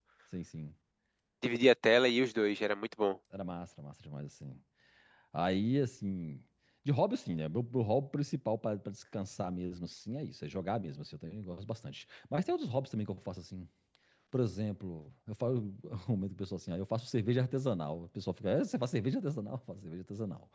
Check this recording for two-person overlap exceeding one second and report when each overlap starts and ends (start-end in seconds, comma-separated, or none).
none